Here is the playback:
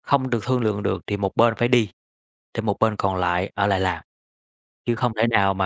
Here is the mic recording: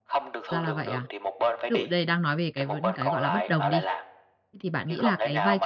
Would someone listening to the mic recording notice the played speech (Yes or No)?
Yes